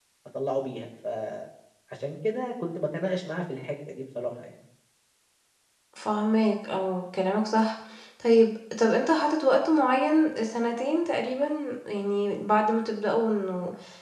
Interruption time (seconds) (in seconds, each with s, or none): none